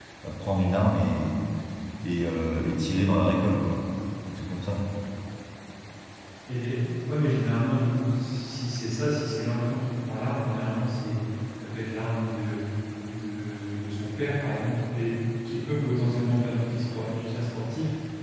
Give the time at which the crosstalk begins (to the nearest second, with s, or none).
none